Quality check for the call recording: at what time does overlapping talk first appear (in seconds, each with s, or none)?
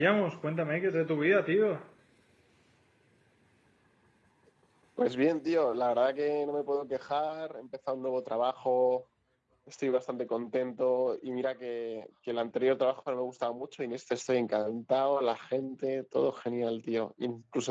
none